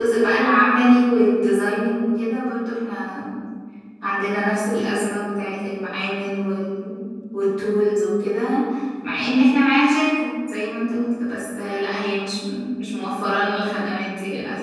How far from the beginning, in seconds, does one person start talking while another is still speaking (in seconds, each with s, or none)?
none